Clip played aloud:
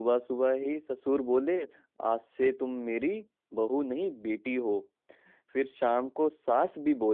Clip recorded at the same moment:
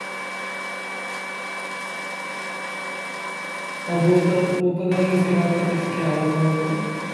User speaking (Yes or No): Yes